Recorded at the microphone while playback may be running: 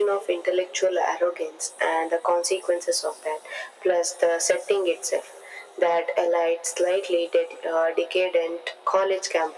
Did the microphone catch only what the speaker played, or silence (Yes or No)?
Yes